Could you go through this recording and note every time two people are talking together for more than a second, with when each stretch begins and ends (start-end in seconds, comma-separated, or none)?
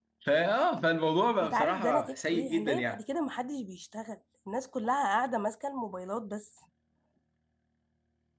1.4-3.0